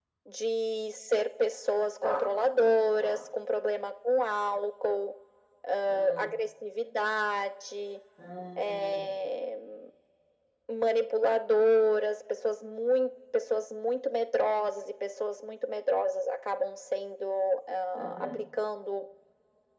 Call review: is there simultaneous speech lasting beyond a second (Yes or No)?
No